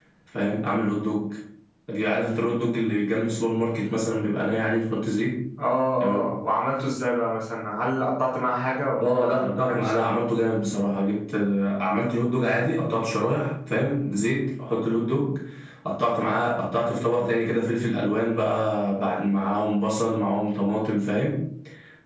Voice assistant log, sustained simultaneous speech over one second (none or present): present